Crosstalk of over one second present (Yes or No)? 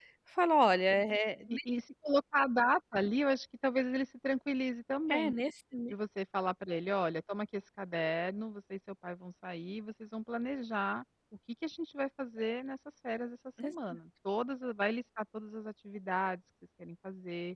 No